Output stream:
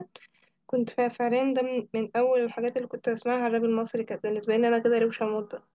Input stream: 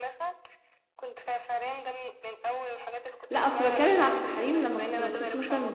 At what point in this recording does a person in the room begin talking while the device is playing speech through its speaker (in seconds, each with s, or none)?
3.3 s